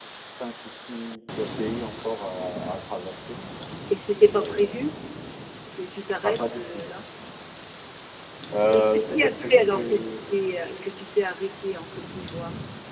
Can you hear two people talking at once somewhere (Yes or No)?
Yes